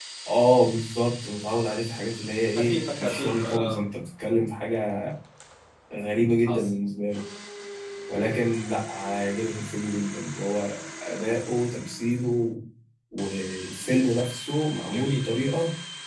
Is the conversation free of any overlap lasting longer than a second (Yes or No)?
No